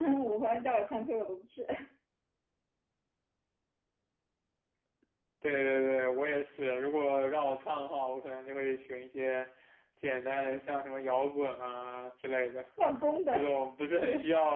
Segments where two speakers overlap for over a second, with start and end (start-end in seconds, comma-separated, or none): none